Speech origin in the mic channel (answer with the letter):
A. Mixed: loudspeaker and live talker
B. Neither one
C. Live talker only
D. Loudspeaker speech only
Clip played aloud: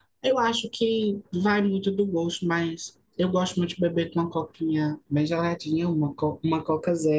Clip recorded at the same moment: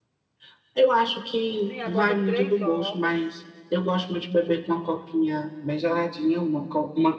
A